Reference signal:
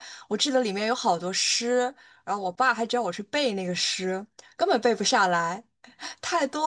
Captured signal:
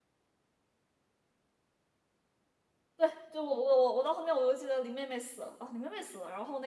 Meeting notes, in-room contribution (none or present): present